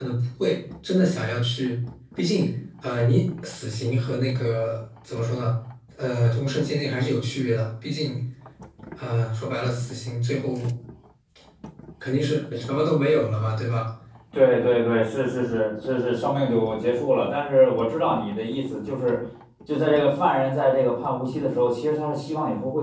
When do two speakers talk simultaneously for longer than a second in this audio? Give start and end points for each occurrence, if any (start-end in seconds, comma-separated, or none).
none